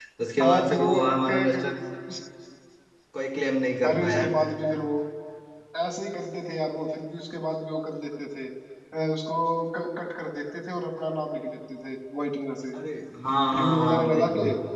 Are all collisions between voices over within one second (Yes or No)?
No